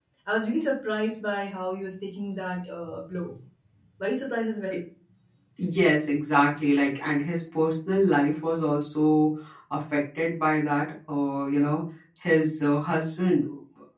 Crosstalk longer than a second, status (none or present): none